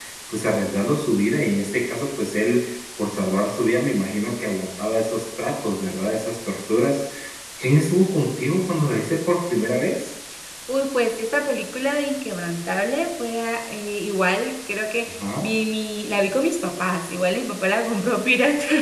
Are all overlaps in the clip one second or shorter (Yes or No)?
Yes